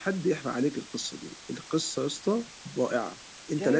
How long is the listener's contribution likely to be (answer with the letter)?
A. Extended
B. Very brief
A